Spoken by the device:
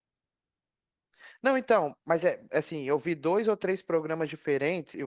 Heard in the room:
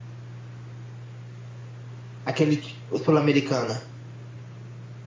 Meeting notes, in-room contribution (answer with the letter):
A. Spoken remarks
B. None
A